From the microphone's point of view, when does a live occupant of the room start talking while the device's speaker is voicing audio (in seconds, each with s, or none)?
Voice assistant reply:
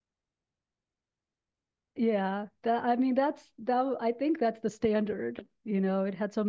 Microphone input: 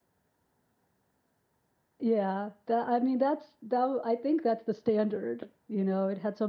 none